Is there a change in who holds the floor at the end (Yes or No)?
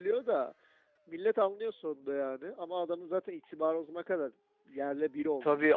Yes